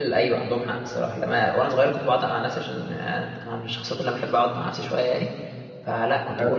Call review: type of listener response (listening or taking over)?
listening